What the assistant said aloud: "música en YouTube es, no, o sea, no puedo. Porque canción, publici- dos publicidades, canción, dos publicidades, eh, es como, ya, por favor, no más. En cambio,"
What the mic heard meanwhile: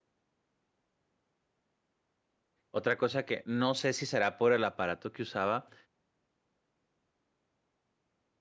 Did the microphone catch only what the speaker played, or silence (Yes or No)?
No